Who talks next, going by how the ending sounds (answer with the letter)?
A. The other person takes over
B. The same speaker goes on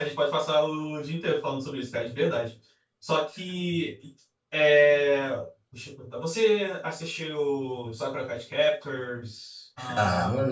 A